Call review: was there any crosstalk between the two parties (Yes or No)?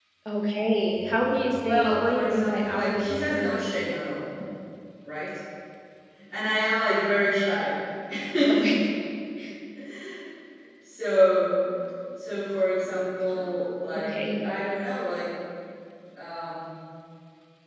Yes